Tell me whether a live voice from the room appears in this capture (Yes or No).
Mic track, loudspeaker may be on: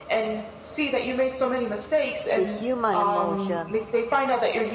Yes